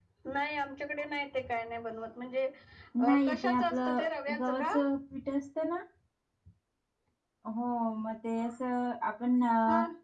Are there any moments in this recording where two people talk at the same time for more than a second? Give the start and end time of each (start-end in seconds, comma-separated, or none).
3.1-4.7